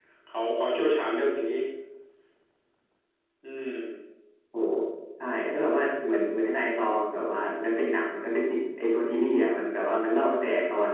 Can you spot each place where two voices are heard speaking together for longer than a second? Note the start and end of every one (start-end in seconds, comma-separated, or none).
none